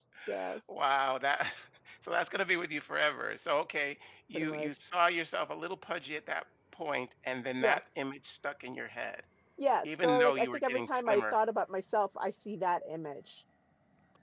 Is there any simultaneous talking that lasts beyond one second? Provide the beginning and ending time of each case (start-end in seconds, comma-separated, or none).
9.8-11.3